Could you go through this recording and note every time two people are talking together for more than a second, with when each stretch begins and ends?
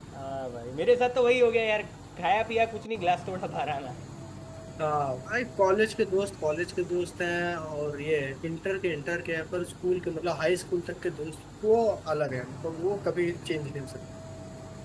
none

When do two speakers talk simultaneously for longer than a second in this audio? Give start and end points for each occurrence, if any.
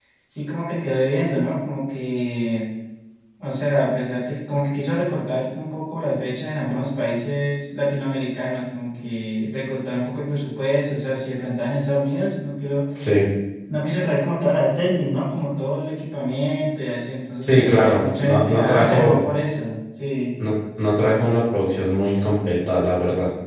17.4-19.2

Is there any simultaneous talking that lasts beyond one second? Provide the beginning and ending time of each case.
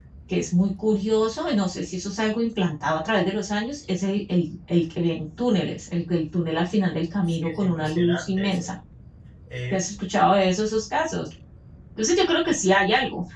7.2-8.7

